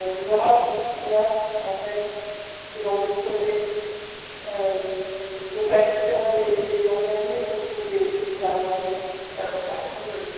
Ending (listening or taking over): taking over